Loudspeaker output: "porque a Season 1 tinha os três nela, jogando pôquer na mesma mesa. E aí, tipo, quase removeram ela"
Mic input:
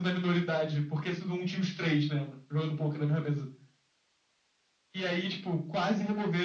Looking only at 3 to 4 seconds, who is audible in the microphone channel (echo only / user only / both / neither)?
echo only